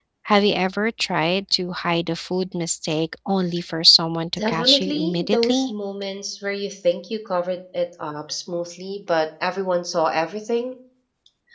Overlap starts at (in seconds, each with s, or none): 4.4 s